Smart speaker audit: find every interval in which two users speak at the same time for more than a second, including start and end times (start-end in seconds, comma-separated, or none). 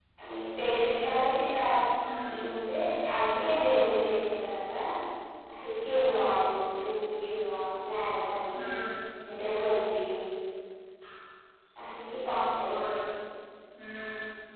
none